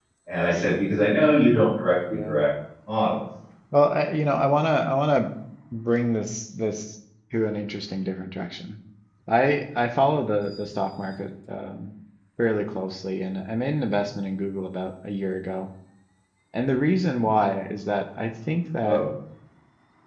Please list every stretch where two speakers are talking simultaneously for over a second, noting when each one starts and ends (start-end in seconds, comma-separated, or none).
none